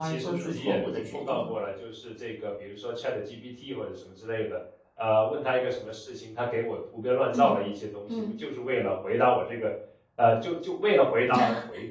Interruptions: present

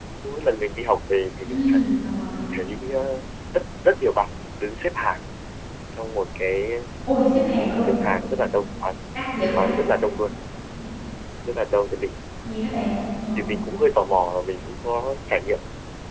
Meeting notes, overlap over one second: none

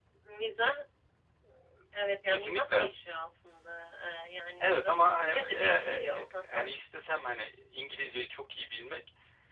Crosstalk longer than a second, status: present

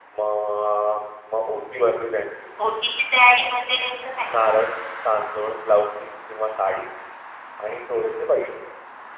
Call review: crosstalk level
none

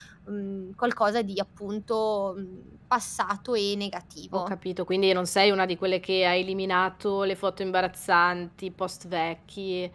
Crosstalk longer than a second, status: none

